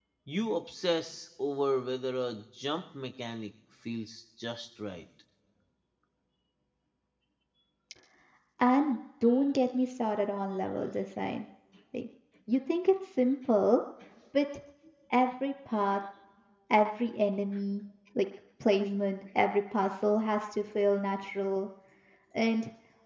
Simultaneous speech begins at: none

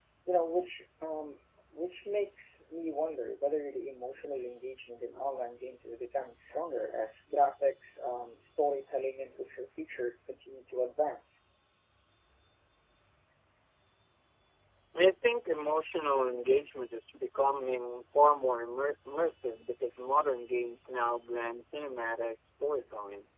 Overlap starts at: none

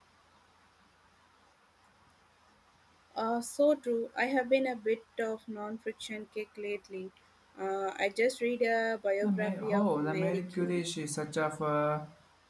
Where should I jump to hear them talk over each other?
9 s

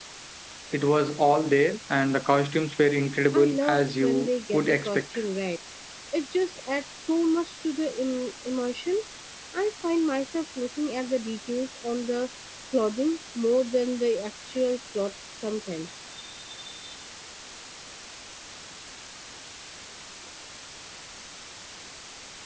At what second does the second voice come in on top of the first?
3 s

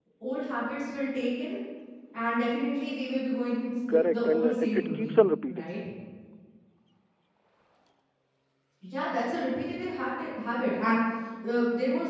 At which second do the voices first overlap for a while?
4 s

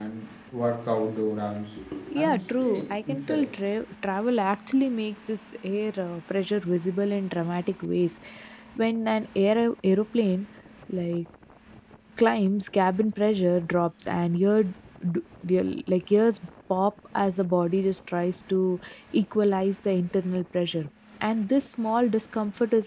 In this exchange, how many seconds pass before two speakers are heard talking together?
2 s

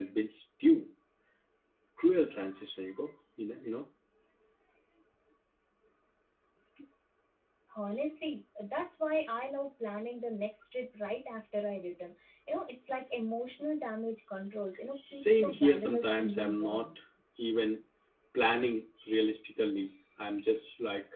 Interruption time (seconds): 15 s

